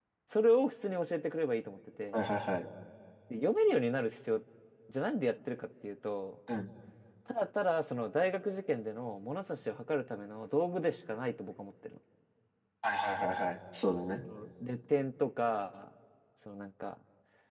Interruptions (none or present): none